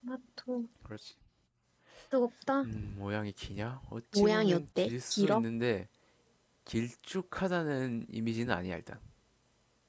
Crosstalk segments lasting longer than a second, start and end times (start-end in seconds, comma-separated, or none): 4.1-5.4